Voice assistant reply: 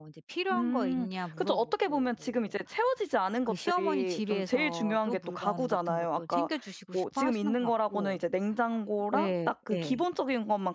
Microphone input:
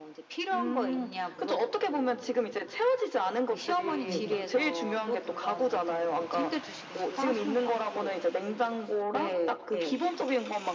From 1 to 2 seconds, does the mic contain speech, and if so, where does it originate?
echo only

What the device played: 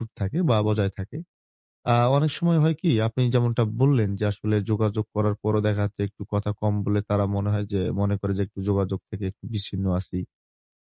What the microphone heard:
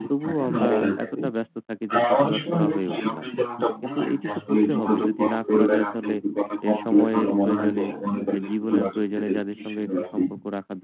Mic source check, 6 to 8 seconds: both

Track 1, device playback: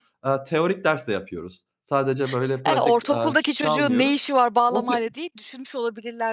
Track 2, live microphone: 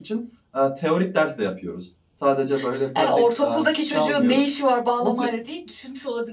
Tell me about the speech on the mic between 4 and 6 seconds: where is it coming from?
echo only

